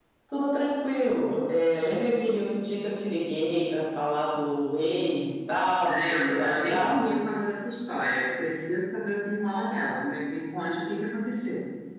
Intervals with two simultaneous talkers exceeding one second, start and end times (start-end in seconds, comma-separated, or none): 5.9-7.1